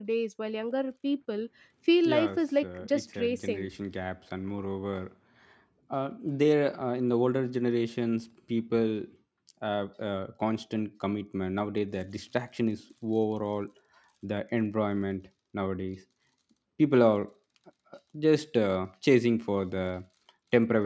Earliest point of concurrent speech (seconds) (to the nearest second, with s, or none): 2 s